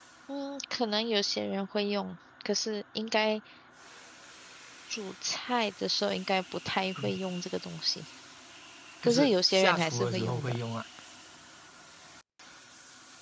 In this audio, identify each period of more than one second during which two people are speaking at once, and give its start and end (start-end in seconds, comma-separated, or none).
9.0-10.6